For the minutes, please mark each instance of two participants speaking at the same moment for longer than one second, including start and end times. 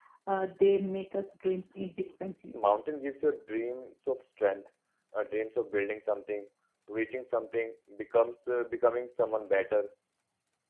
none

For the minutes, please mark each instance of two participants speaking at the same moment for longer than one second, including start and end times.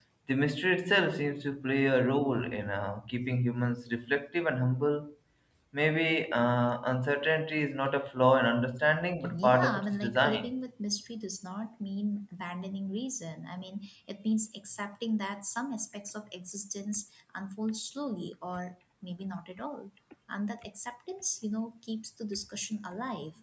9.3-10.5

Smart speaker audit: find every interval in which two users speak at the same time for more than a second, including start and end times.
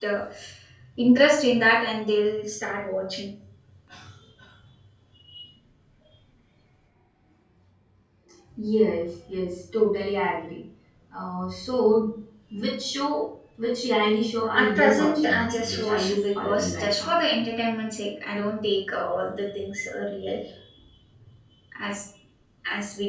14.6-17.1

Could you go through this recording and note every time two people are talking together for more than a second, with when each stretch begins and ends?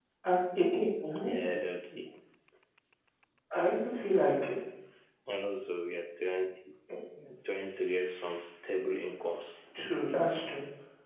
none

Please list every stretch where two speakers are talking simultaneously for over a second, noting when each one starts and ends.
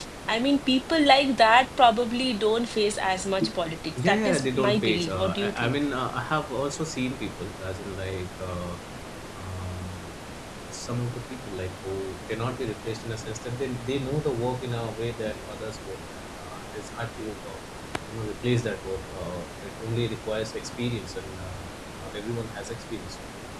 4.0-5.8

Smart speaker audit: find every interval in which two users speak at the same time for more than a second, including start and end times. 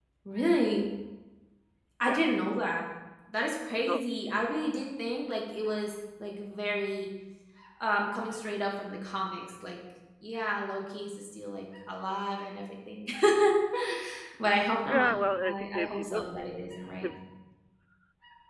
14.4-16.2

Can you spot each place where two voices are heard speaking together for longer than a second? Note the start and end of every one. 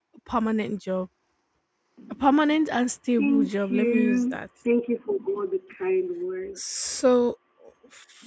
3.2-4.5

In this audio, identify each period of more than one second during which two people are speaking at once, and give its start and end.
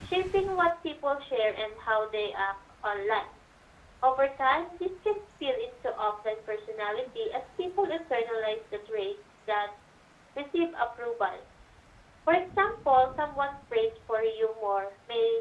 none

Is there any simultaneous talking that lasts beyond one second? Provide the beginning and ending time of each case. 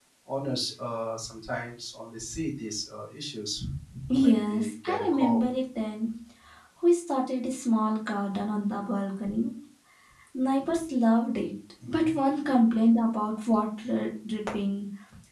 4.2-5.4

